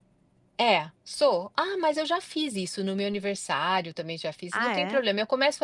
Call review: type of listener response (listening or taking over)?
listening